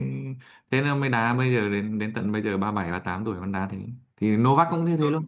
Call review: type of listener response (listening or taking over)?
listening